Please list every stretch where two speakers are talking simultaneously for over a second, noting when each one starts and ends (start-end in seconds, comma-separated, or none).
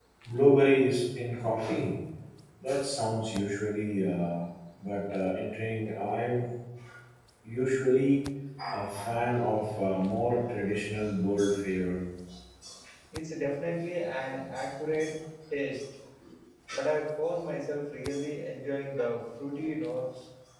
none